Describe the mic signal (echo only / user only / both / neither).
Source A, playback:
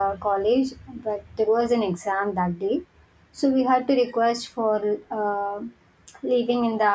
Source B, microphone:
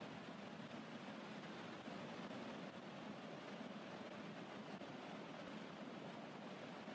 neither